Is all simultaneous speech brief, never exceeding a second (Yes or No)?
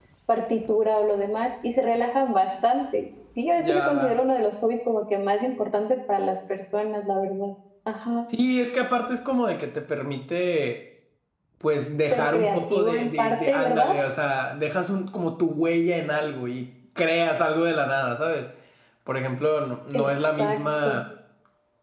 No